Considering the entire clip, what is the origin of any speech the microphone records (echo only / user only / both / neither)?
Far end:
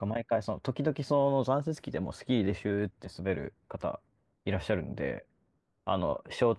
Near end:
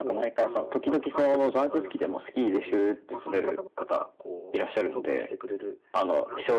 both